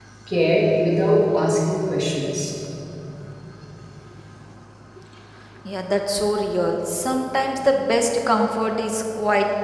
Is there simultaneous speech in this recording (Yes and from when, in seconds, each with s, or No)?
No